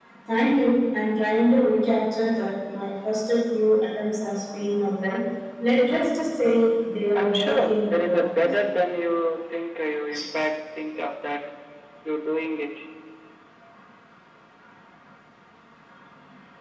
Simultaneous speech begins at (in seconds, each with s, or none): 7.1 s